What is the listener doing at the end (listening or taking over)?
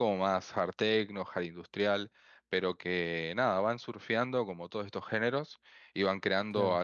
listening